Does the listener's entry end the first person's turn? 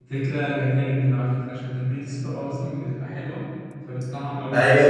Yes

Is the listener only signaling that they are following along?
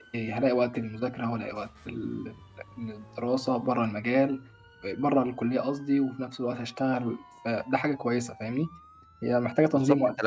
No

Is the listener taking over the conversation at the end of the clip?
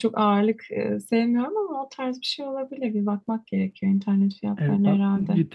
Yes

